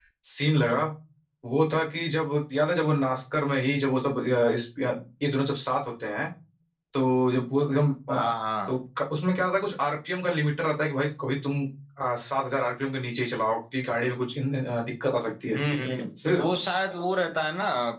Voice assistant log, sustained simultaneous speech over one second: none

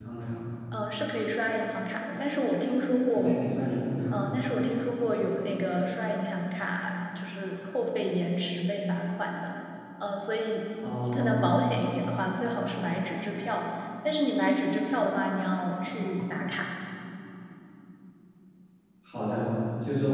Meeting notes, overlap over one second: none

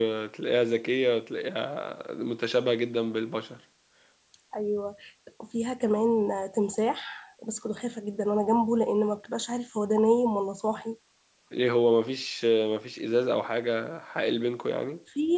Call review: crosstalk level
none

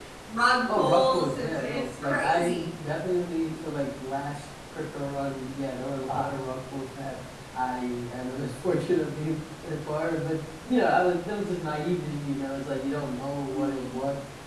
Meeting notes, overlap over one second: present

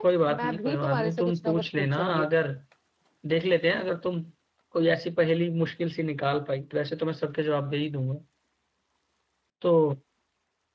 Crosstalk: present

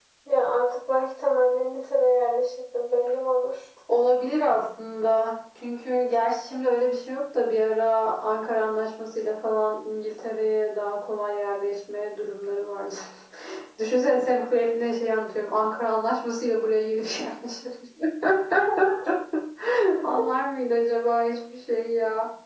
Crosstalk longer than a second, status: none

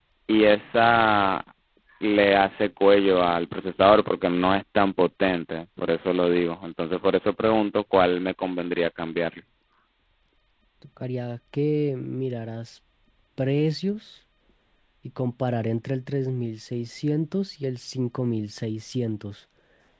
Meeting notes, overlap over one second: none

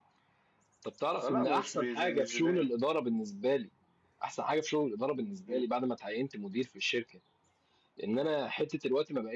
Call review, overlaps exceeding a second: present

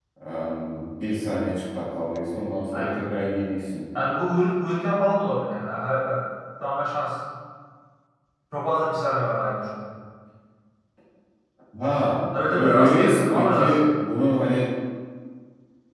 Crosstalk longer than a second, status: present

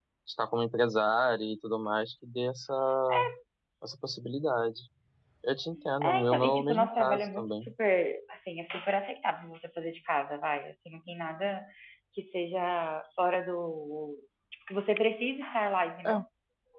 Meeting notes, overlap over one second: present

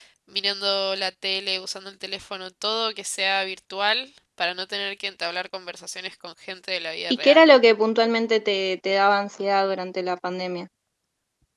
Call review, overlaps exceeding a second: none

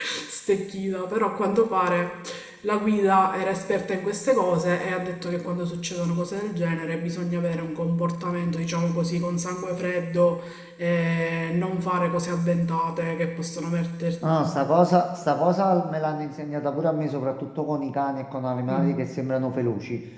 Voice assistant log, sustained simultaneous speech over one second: none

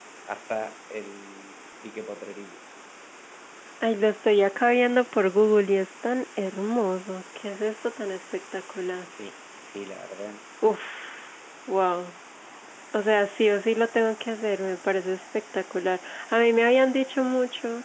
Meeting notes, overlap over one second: none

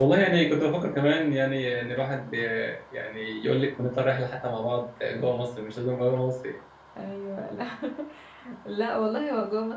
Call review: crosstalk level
none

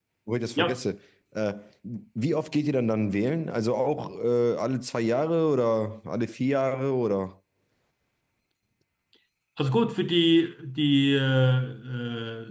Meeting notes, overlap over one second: none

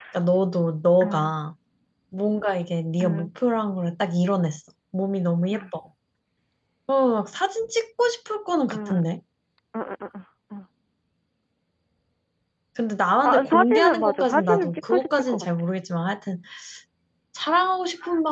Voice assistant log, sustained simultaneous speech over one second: present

